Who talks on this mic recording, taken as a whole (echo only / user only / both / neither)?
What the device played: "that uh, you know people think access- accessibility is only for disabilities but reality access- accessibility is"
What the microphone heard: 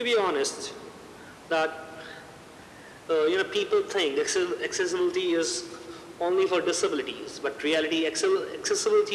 echo only